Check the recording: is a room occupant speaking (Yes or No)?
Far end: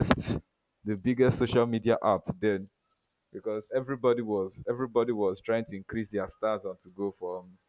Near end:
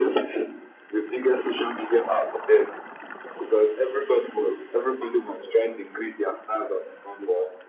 No